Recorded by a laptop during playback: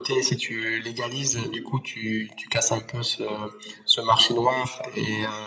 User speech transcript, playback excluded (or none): none